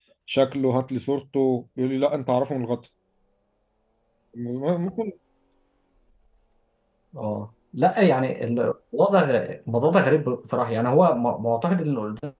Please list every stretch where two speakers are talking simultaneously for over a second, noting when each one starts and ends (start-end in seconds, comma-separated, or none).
none